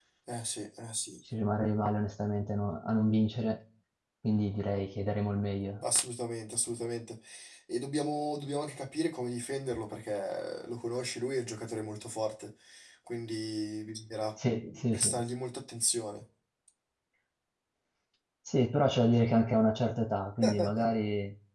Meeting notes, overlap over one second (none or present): none